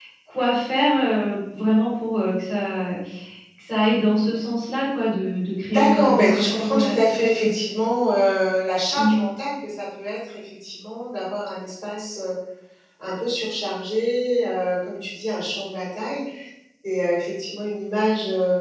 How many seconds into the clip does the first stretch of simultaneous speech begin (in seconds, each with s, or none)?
5.7 s